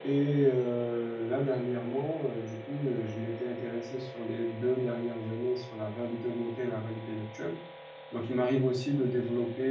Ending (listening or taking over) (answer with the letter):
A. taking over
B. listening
B